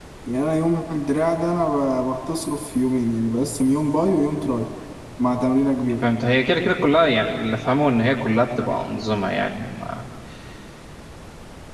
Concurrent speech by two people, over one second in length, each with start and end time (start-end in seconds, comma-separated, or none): none